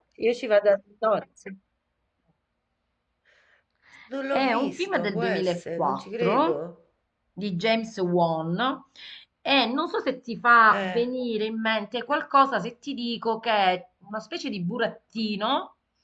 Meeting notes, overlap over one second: present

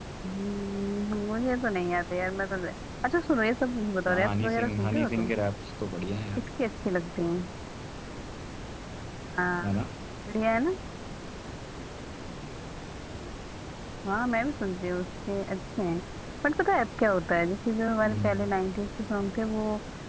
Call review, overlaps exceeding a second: present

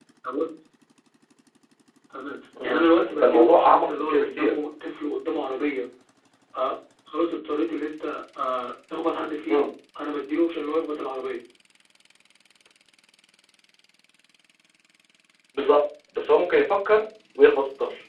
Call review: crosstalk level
present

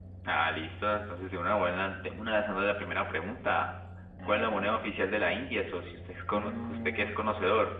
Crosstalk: present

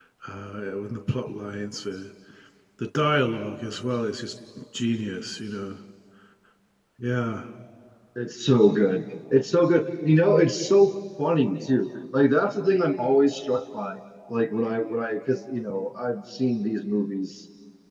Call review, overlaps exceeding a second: none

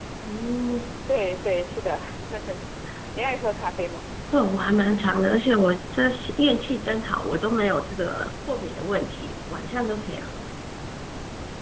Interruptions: none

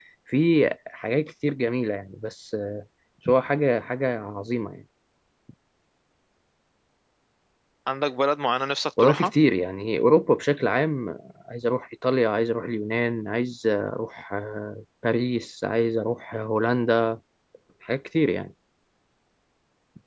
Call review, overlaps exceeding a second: none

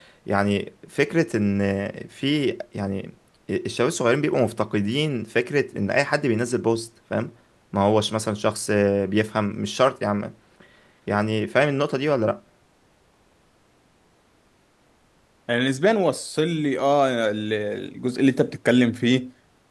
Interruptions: none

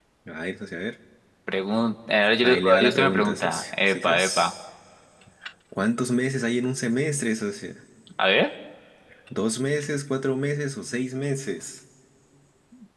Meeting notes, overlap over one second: present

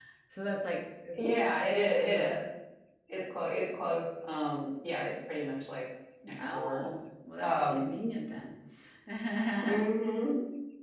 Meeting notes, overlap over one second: none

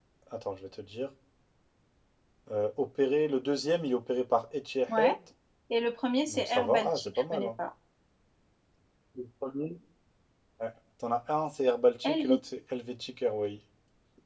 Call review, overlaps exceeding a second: present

